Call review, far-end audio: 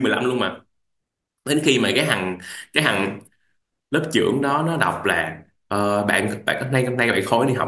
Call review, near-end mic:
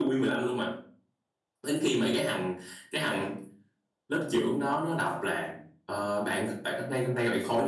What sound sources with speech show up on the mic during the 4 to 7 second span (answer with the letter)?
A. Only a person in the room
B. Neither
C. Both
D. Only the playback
D